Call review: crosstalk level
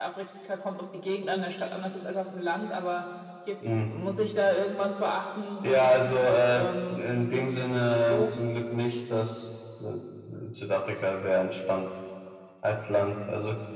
present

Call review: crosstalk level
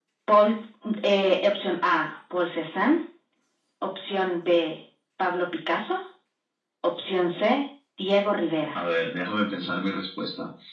none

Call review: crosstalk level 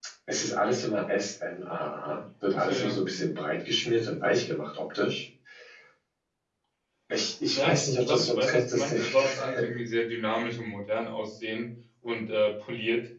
present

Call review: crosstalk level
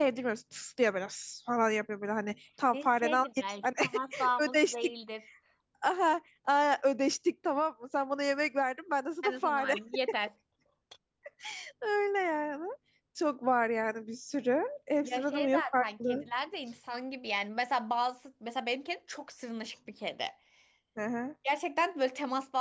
present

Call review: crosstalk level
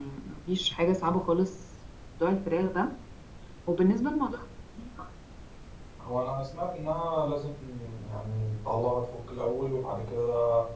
none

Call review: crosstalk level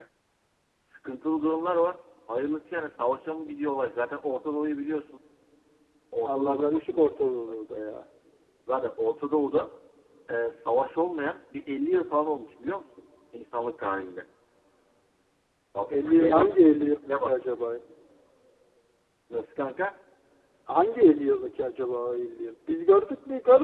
present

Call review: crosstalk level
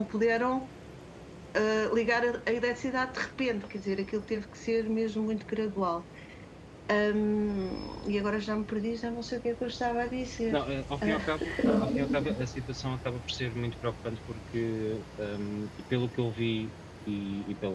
present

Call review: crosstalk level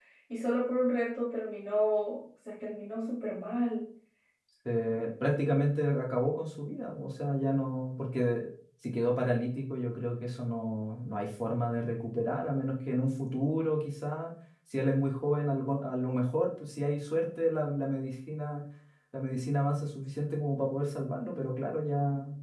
none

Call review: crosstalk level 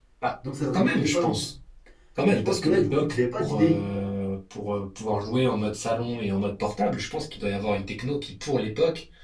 present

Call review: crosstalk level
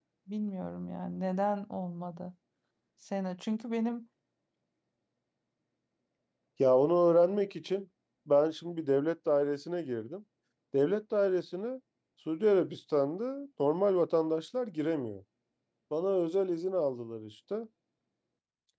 none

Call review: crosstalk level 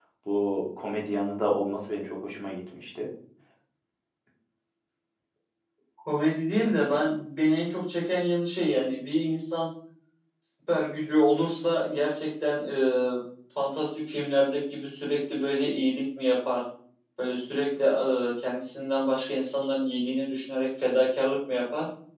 none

